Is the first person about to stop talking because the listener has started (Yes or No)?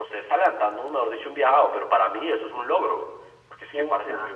No